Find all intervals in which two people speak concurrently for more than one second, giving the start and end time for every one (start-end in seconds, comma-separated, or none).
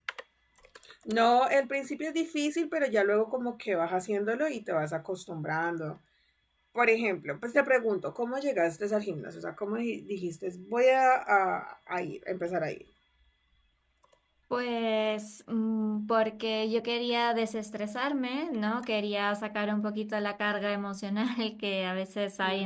none